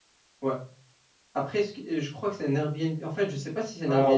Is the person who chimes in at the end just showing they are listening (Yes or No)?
No